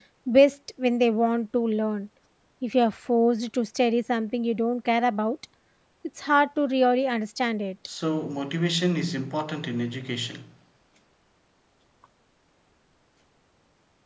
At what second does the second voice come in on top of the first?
none

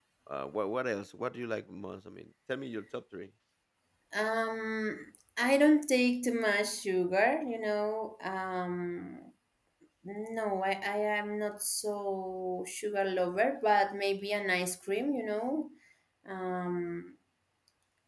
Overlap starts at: none

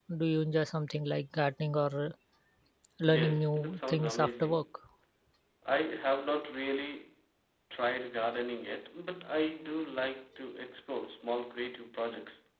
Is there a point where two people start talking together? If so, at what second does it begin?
3 s

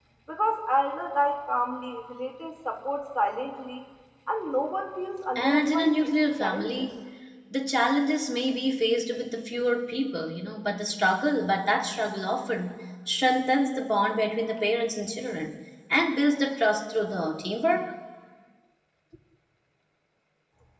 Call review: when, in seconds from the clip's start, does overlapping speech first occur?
5 s

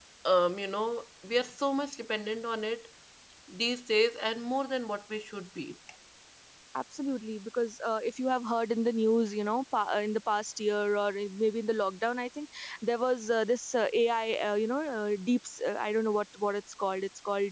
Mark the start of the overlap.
none

